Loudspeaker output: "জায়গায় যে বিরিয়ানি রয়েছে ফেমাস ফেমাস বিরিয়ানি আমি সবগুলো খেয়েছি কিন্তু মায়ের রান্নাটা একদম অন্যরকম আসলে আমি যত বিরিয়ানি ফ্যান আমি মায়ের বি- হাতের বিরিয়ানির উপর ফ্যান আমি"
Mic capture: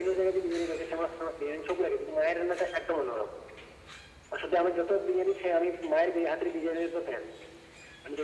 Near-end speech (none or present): none